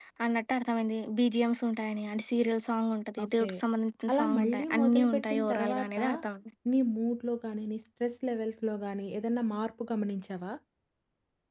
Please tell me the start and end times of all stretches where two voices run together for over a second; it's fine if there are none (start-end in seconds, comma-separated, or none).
4.1-6.0